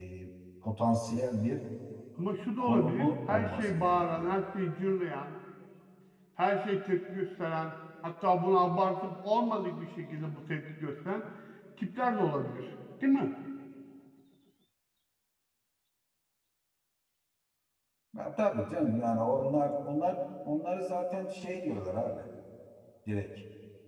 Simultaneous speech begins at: 2.6 s

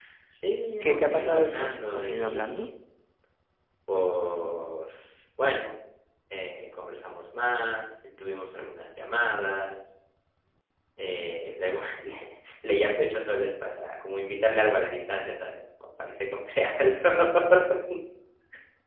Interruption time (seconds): 0.8 s

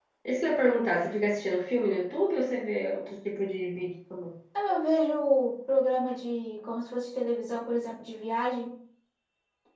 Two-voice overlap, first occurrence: none

